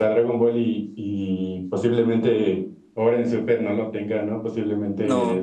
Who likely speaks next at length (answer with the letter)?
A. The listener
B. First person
B